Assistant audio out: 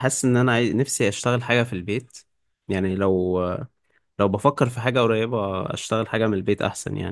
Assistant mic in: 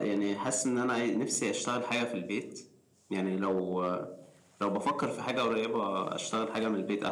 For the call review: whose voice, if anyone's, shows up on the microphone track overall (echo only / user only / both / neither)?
echo only